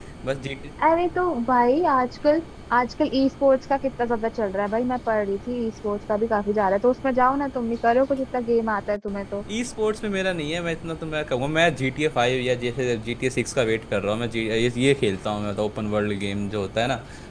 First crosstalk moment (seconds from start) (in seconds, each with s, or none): none